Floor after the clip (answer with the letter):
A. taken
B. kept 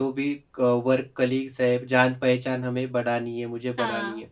A